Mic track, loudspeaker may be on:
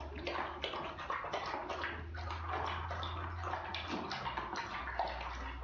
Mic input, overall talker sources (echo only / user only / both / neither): neither